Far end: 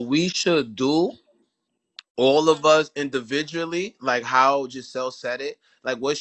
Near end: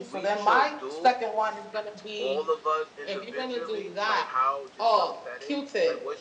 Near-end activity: present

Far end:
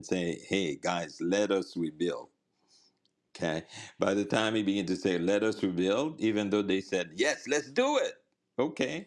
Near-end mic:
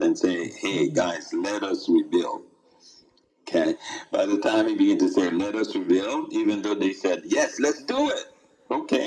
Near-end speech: present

